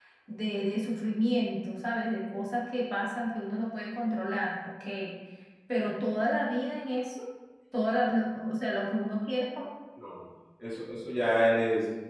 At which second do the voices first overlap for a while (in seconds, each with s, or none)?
none